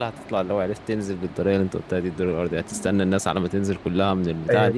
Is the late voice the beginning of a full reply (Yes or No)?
Yes